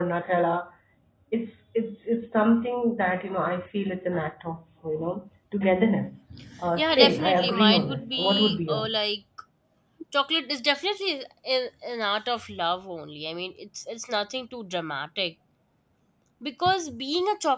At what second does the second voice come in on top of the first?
6.7 s

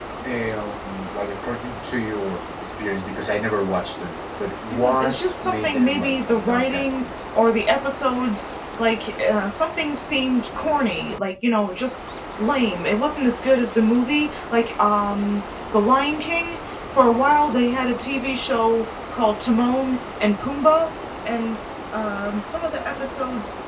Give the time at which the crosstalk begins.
4.7 s

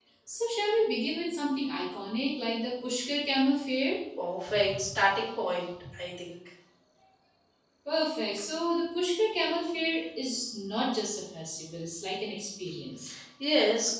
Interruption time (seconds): none

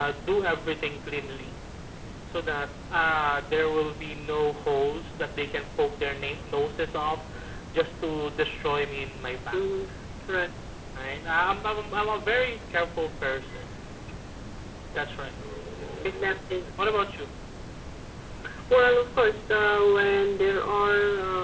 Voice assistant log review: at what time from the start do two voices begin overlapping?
none

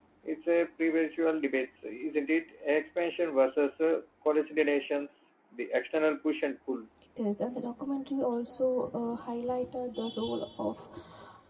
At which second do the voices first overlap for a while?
none

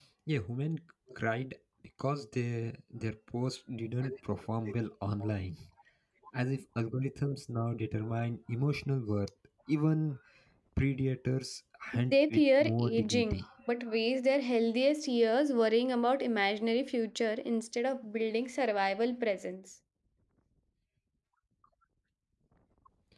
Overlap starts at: 11.9 s

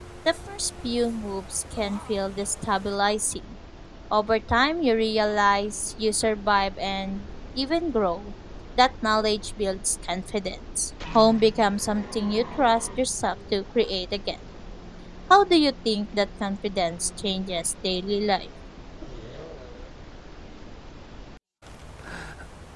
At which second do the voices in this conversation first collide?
none

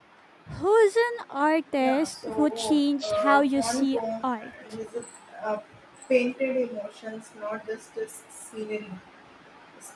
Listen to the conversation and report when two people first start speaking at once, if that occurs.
1.8 s

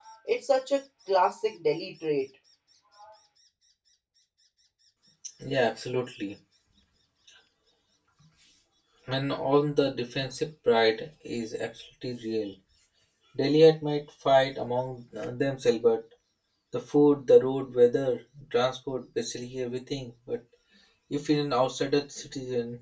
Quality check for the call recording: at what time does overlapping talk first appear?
none

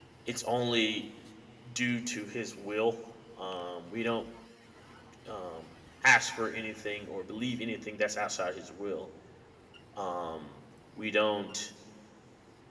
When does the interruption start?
none

